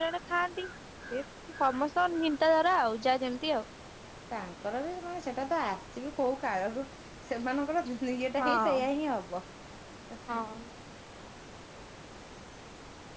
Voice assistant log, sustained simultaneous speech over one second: none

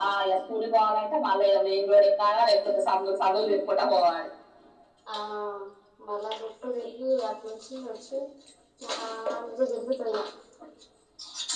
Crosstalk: none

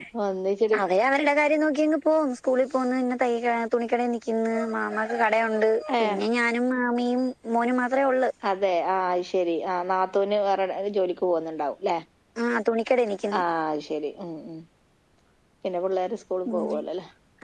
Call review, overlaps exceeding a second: none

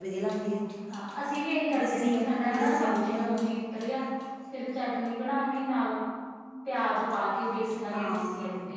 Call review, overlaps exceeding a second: present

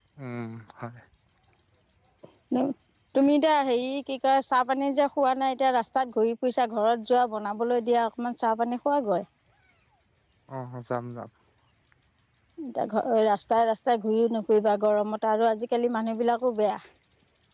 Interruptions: none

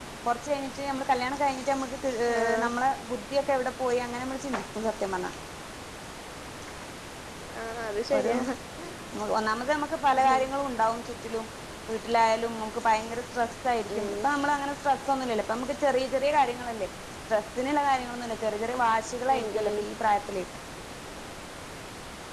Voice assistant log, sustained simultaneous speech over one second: none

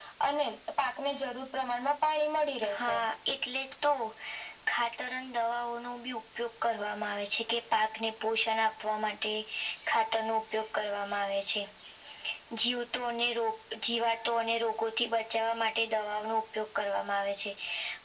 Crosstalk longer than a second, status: none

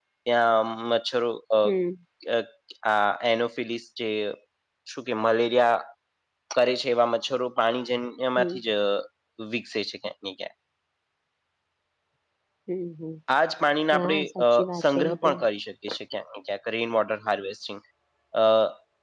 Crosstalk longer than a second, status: present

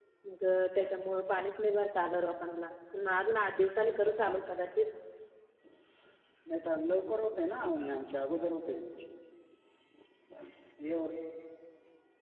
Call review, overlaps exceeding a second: none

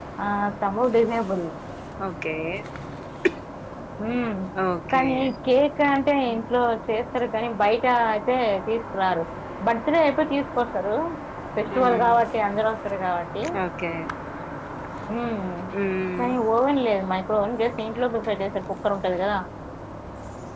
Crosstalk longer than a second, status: none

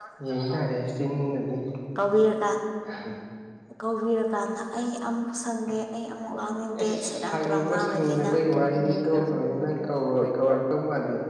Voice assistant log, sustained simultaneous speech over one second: present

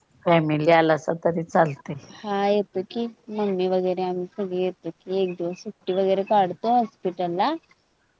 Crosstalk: none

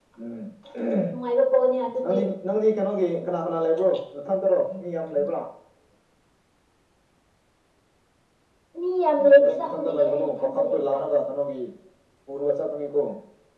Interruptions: present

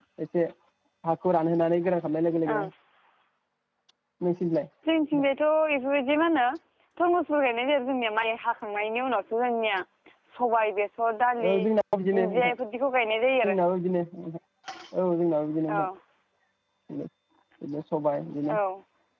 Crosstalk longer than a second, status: none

